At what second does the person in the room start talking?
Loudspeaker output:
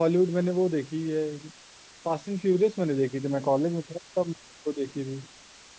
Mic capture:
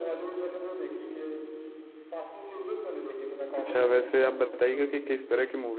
3.6 s

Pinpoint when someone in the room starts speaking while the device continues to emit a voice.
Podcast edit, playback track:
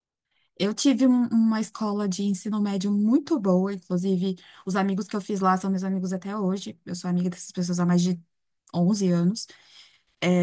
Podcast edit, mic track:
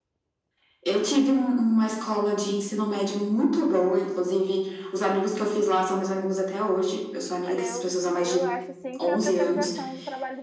7.5 s

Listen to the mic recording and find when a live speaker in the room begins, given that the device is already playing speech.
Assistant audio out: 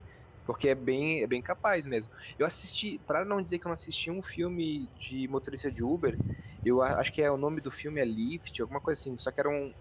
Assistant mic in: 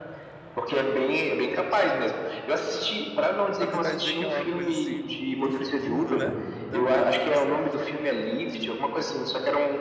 3.6 s

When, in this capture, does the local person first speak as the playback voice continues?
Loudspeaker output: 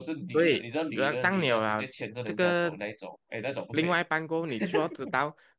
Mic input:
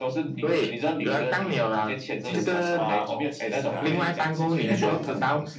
2.2 s

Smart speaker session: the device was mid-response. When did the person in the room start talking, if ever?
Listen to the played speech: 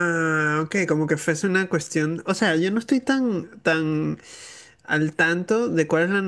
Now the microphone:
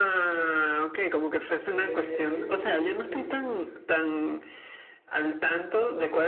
1.5 s

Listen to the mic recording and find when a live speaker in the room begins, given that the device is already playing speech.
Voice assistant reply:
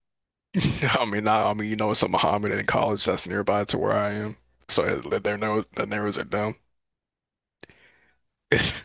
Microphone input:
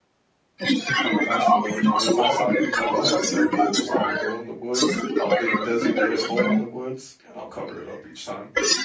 0.9 s

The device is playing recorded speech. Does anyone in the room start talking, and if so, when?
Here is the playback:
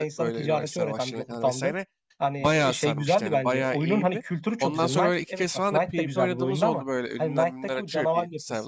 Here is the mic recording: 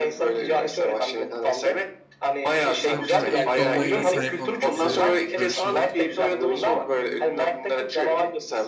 2.9 s

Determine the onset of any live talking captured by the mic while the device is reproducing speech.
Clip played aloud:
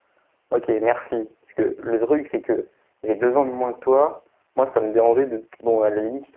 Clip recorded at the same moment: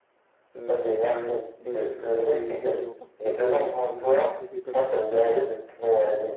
0.6 s

